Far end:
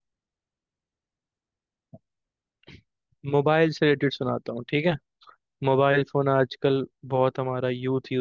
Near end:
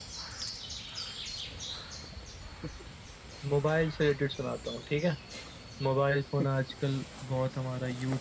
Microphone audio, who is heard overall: echo only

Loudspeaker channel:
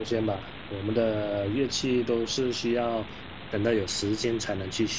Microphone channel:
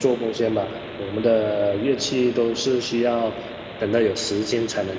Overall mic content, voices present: echo only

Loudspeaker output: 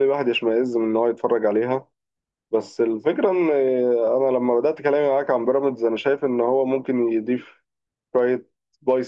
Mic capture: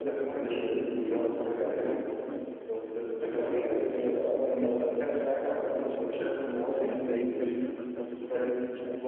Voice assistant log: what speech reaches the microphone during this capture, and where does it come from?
both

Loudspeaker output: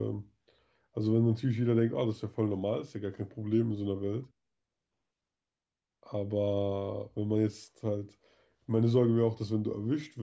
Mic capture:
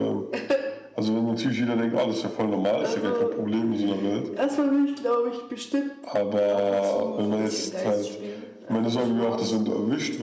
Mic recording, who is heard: both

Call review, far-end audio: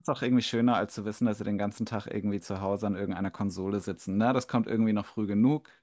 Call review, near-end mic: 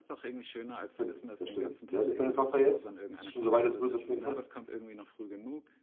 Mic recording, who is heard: both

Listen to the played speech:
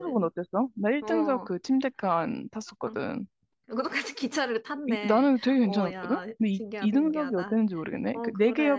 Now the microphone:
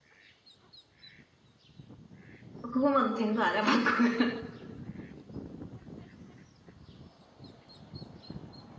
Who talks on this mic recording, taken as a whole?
user only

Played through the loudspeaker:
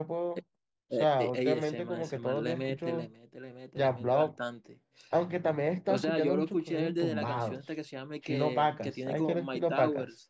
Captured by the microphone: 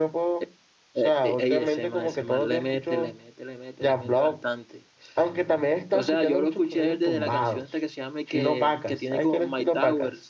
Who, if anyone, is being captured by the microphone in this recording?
echo only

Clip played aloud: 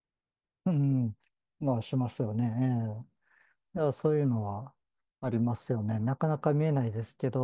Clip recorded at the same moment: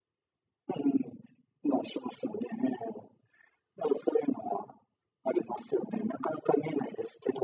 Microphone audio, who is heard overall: echo only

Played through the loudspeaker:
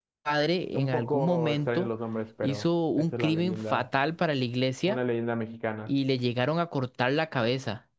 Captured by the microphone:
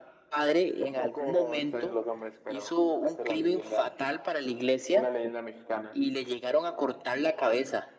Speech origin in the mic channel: echo only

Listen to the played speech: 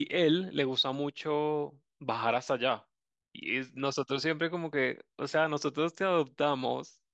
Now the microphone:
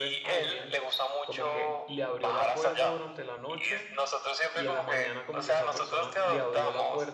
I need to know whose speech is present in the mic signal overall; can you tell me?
both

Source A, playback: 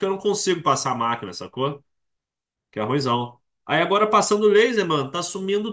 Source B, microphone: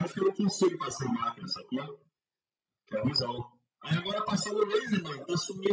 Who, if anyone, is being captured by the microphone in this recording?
echo only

